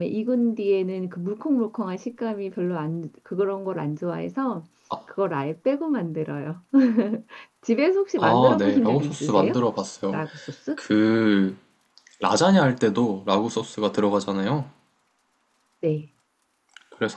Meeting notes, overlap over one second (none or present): present